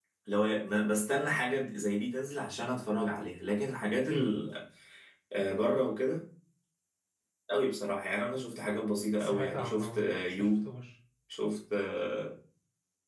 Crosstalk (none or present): present